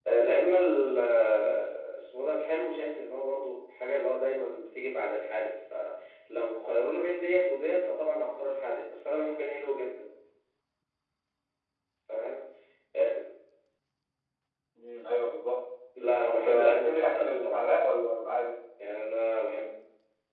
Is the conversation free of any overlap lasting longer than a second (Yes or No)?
No